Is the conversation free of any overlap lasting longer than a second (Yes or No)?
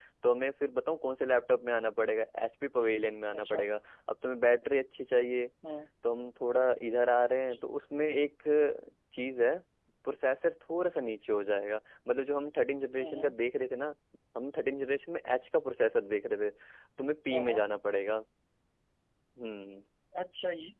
Yes